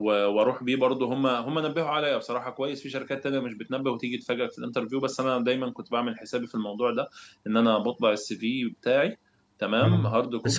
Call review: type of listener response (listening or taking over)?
taking over